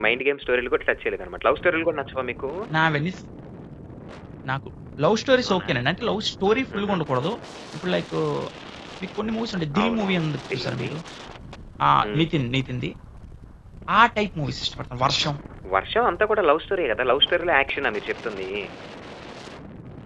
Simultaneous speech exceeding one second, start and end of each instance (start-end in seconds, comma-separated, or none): none